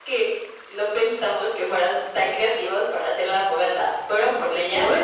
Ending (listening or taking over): listening